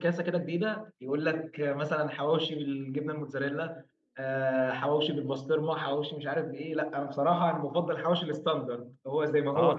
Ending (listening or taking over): taking over